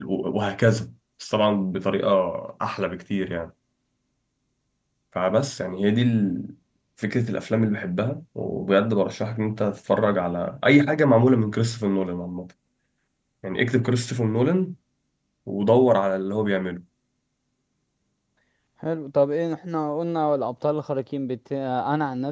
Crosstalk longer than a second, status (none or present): none